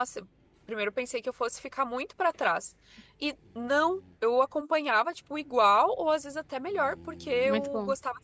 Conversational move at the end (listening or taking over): listening